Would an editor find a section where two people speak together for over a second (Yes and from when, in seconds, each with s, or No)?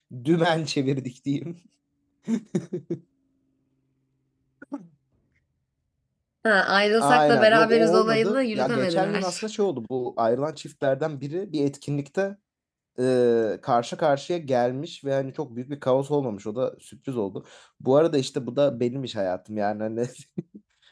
Yes, from 7.0 s